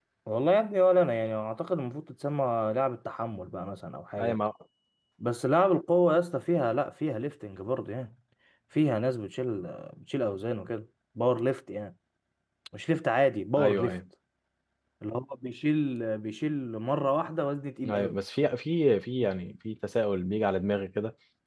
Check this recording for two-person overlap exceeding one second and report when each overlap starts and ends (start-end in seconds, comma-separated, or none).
none